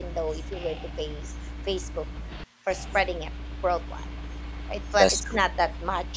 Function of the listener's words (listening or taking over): listening